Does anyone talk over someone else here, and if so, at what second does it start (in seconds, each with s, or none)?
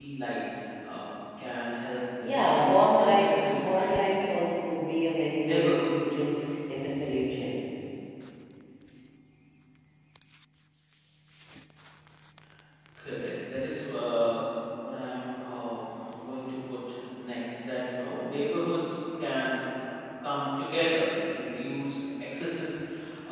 2.2 s